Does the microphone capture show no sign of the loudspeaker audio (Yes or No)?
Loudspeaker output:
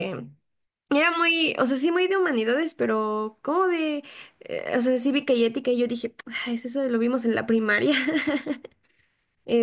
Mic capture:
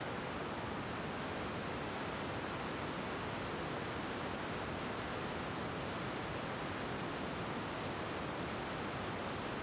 Yes